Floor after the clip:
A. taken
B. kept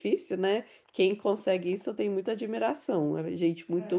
A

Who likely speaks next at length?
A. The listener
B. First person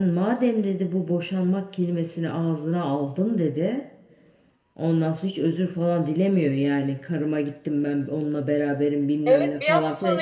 A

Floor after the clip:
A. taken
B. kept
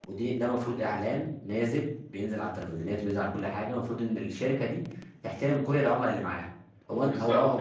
A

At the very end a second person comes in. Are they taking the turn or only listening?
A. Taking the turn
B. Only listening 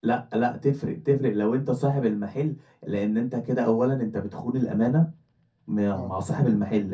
B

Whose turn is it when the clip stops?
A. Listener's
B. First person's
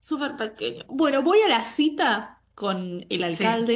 B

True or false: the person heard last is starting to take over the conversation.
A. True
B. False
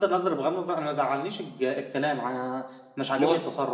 B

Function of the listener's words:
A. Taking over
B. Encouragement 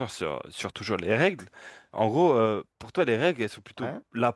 B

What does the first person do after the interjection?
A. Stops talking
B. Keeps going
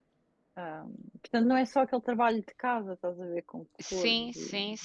A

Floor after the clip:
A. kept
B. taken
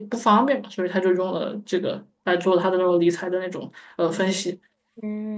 B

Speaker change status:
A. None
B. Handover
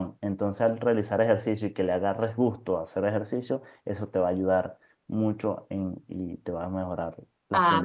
B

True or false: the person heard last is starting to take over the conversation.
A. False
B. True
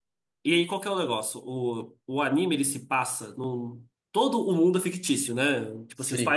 A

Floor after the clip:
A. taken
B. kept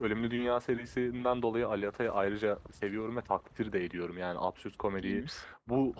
B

